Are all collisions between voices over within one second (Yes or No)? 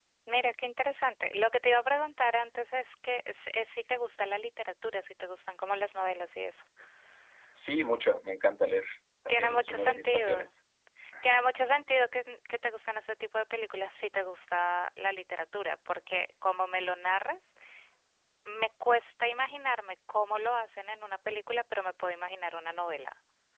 No